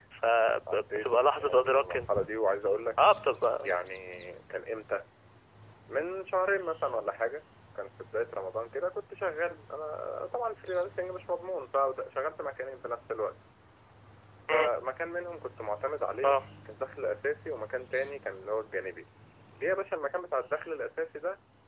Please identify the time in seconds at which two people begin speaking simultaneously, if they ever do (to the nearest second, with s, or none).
1 s